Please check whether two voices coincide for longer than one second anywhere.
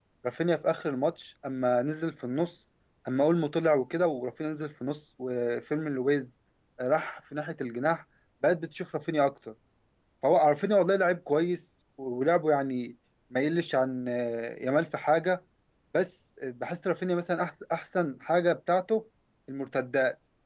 No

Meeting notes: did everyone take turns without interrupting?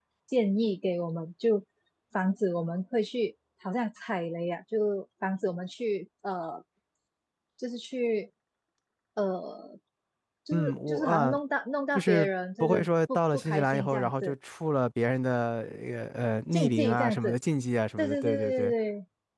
No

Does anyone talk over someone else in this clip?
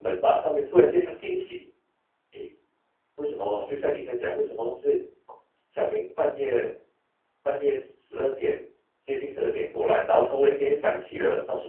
No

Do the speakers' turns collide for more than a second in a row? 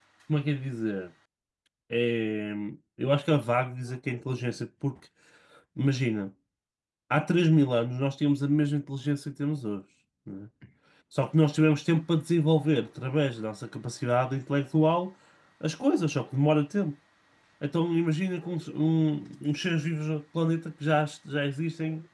No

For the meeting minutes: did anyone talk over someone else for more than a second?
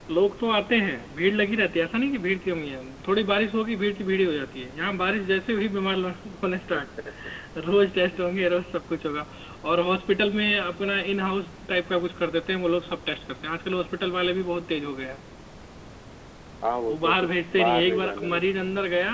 Yes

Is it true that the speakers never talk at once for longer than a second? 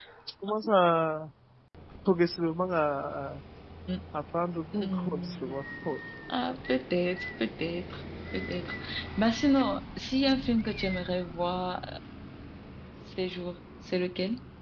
No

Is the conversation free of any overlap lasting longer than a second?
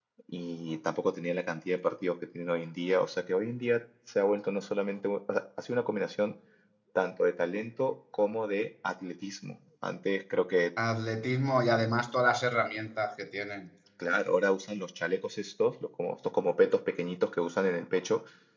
Yes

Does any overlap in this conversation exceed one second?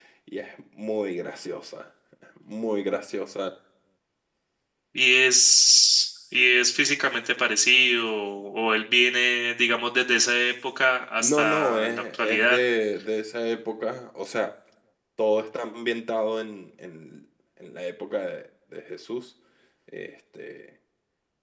Yes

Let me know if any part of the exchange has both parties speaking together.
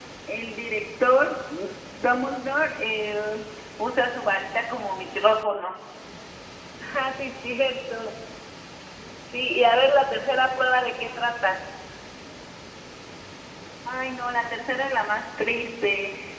No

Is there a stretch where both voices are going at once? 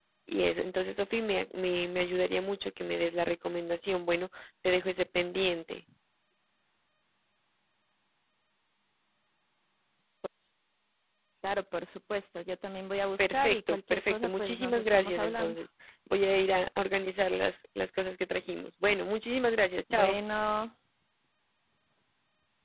Yes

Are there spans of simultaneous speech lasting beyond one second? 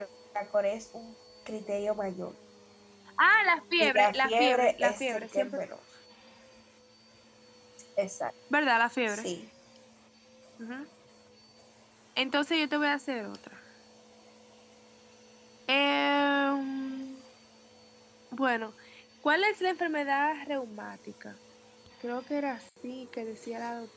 Yes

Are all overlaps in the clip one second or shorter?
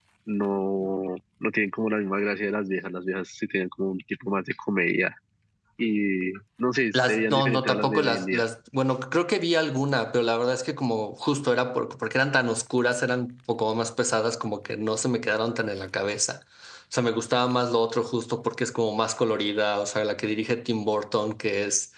No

